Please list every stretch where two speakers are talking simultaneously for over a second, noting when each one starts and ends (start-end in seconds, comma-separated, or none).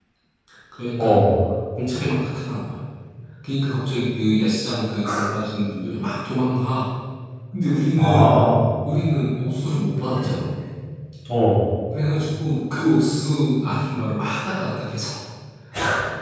none